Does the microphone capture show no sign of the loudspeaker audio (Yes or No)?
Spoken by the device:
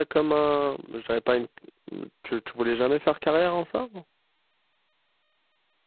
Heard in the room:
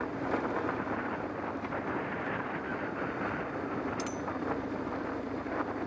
Yes